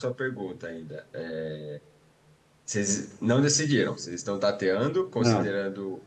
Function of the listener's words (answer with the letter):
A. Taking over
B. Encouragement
B